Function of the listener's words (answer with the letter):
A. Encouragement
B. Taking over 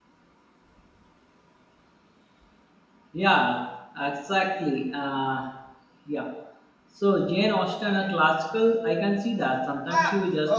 A